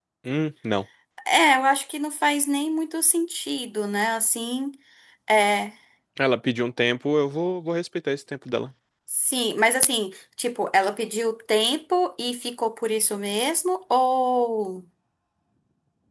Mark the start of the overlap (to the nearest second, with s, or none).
none